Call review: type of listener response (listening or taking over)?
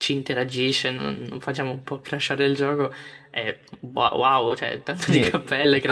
taking over